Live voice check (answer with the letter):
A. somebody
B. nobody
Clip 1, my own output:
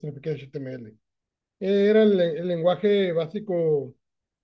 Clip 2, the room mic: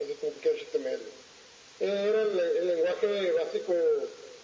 B